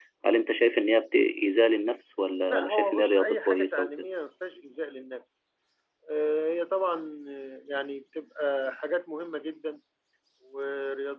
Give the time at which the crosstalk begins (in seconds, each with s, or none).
2.5 s